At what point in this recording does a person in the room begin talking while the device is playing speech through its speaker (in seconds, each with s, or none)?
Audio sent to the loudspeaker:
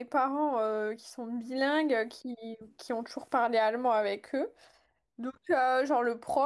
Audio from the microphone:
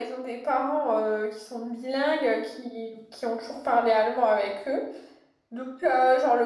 none